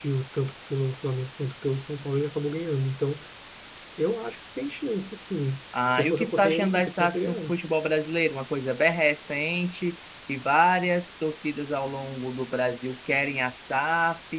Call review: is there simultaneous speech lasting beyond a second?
Yes, from 5.7 s

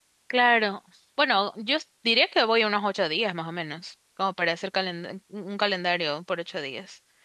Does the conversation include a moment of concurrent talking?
No

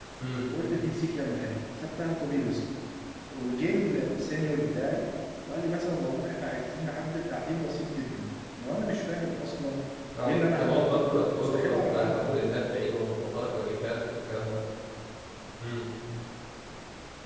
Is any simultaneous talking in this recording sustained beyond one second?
Yes, from 10.2 s

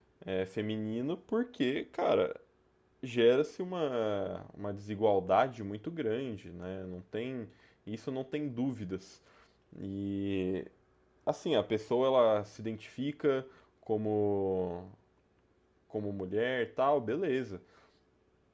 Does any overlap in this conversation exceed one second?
No

